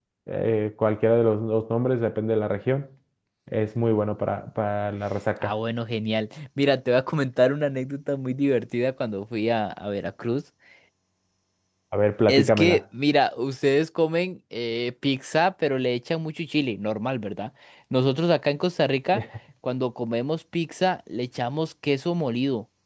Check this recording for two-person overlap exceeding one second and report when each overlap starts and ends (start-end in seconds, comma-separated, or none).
none